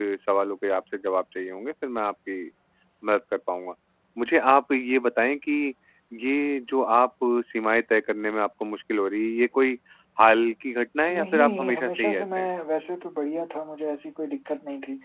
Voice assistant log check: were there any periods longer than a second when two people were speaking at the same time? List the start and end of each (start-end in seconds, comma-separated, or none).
11.2-12.5